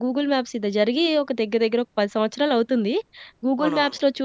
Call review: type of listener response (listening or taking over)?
listening